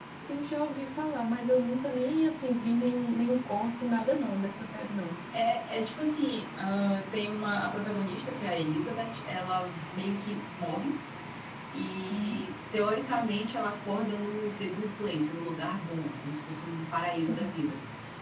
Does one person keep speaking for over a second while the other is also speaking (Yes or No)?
No